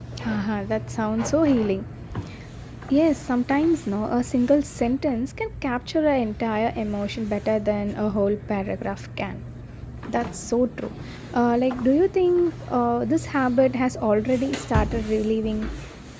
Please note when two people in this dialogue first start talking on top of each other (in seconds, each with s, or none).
none